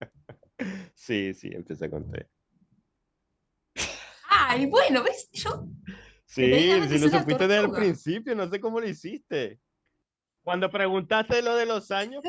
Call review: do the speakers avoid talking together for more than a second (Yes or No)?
No